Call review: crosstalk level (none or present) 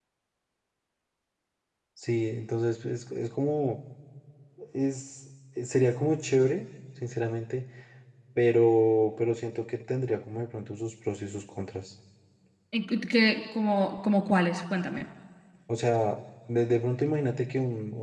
none